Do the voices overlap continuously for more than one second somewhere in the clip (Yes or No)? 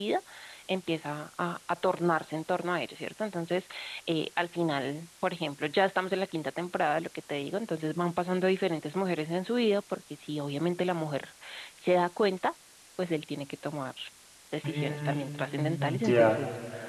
Yes